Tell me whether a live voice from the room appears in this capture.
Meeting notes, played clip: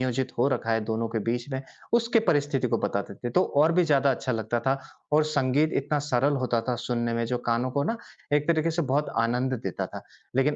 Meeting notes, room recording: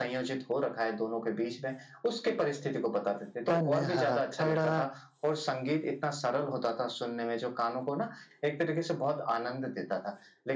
Yes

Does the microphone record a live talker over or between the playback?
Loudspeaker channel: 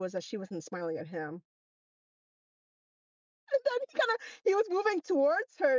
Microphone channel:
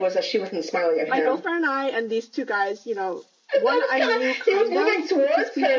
Yes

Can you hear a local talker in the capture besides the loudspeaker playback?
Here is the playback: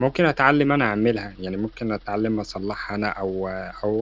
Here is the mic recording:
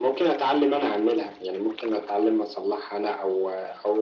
No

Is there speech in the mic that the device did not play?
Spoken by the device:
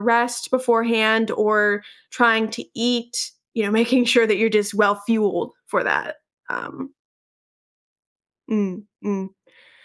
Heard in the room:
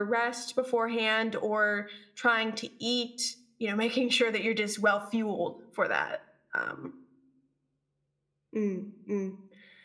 No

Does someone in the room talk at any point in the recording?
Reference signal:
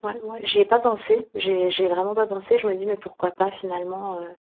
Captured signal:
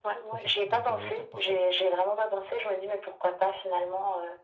Yes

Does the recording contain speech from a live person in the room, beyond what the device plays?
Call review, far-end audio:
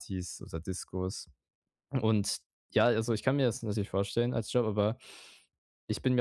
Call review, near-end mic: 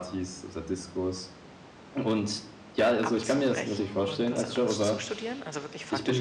Yes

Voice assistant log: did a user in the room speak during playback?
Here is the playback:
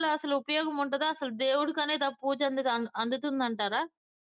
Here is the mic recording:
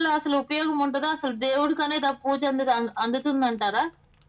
No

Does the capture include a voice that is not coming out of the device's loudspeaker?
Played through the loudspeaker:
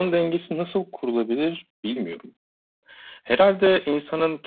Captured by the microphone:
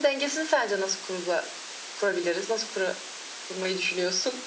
Yes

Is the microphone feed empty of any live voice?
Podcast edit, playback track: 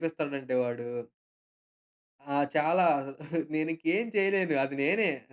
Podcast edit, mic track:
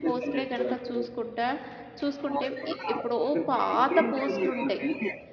No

